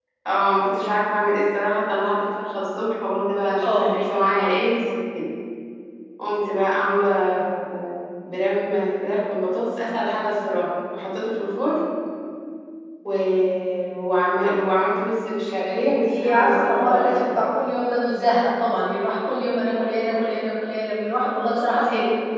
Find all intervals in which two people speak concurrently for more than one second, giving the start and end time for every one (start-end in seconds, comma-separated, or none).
15.8-17.4